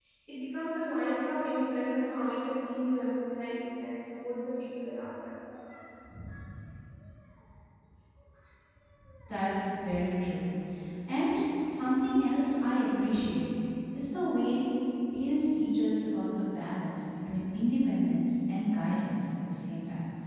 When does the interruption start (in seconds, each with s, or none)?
none